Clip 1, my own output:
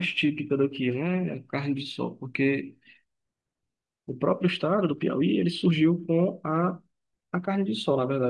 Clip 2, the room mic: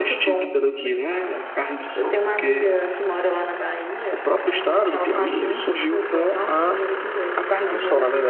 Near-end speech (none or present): present